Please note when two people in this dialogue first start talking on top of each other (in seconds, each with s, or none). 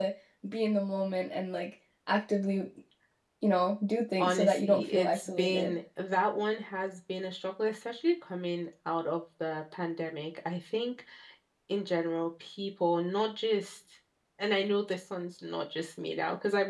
4.2 s